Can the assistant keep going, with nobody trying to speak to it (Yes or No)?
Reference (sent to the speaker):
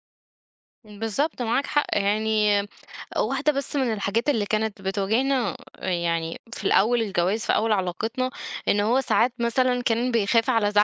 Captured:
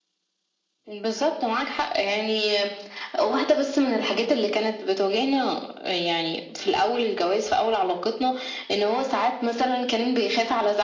Yes